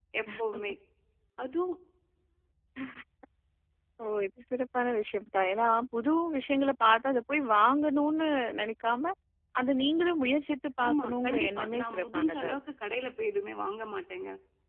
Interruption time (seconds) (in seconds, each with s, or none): 10.8 s